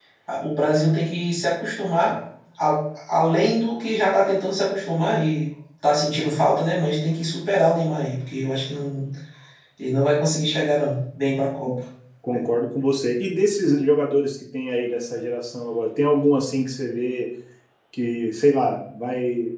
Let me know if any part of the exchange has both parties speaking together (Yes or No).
No